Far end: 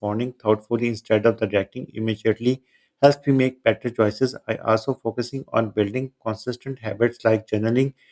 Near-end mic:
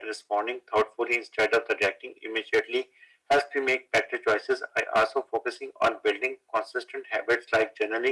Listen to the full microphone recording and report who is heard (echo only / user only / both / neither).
echo only